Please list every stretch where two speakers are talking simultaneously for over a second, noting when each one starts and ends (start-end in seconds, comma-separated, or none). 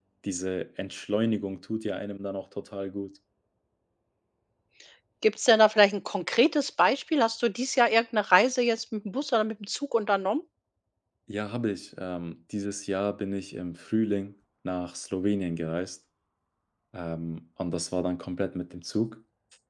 none